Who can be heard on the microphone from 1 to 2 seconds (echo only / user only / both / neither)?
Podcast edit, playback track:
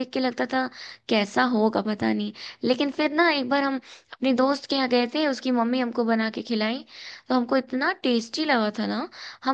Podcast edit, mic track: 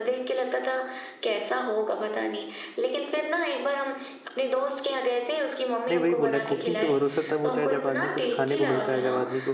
echo only